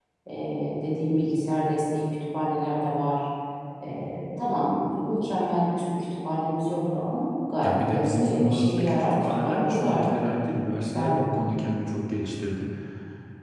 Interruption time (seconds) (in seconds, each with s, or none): 7.6 s